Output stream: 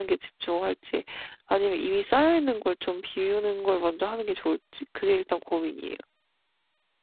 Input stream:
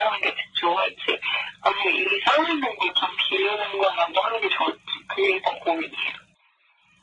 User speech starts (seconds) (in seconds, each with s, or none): none